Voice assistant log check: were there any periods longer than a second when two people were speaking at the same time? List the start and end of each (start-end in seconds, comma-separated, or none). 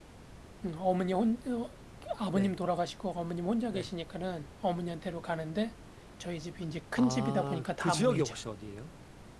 7.0-8.4